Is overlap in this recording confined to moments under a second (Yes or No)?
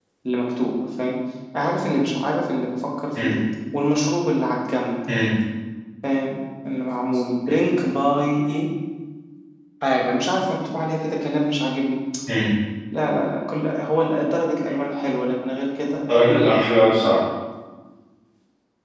Yes